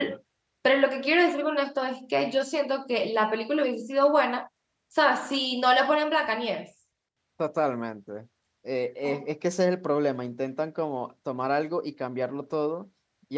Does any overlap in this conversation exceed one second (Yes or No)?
No